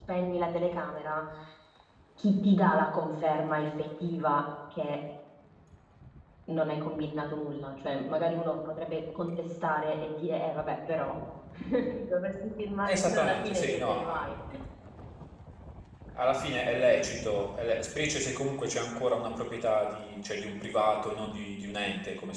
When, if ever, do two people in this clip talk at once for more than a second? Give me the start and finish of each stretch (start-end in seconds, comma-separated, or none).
12.8-14.2